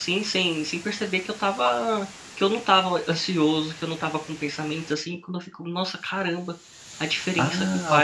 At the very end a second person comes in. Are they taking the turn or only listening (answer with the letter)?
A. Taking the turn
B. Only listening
A